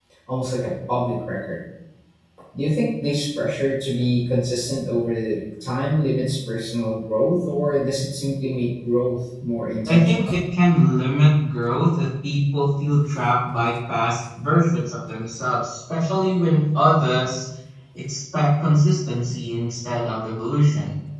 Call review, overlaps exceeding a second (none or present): none